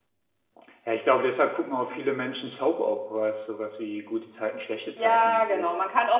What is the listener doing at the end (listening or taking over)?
taking over